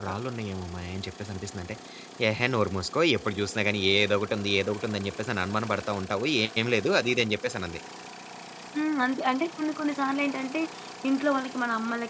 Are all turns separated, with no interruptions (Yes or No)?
Yes